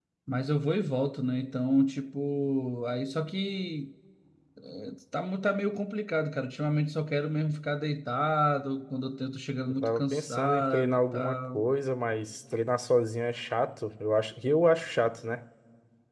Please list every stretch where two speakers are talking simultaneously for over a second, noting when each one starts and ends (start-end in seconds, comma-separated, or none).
9.8-11.6